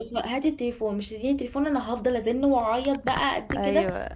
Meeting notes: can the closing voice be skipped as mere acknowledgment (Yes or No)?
No